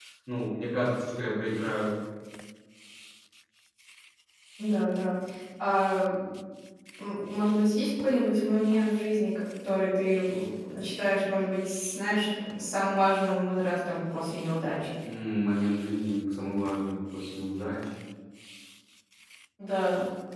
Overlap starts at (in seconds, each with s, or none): none